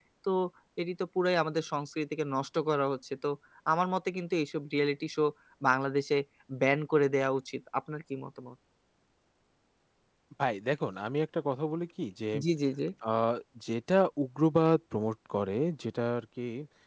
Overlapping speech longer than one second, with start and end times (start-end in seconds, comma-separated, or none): none